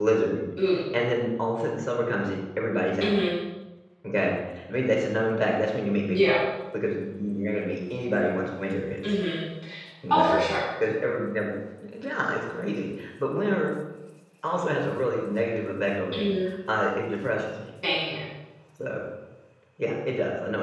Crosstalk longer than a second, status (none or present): none